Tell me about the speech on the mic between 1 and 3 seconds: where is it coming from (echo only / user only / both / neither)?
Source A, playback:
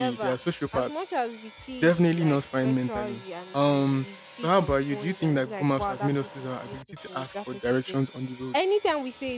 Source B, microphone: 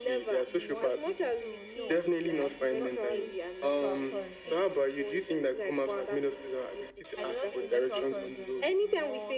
both